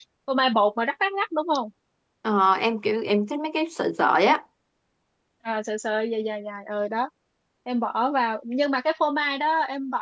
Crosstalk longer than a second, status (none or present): none